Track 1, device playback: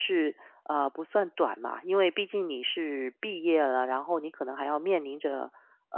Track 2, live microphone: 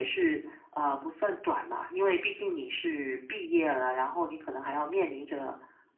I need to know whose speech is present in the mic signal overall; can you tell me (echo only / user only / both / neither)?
echo only